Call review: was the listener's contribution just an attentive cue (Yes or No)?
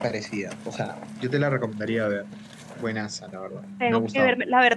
No